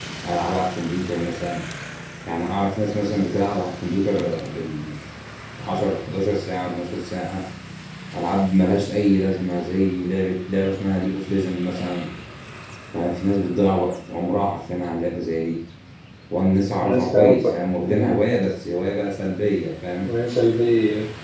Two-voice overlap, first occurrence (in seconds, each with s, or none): 16.8 s